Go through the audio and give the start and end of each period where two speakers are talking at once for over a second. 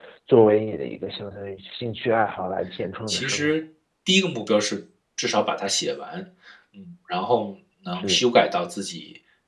none

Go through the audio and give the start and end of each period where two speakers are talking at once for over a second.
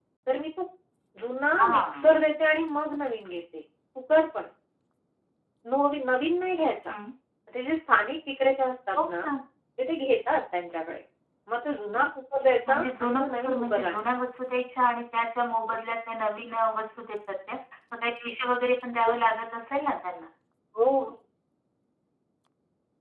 12.7-14.1

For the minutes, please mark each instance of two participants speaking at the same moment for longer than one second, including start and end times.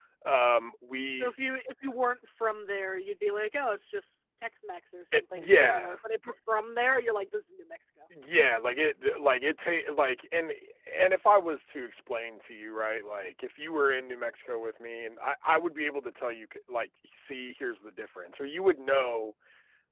5.1-6.3

